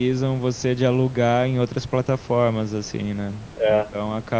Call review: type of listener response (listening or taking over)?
listening